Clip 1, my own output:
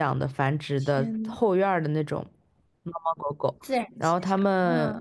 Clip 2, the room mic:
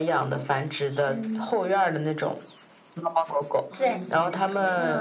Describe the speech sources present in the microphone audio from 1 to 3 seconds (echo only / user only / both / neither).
echo only